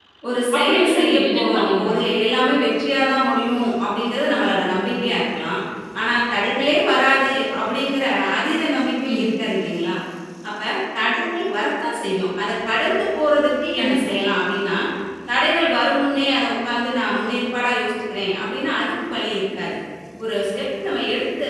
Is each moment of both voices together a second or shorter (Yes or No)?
No